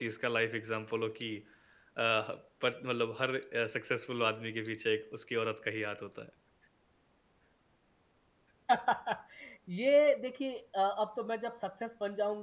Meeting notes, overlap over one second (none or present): none